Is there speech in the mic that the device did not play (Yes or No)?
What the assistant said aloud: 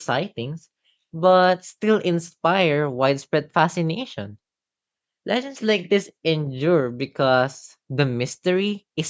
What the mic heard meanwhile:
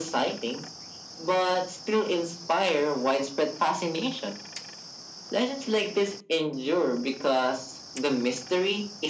No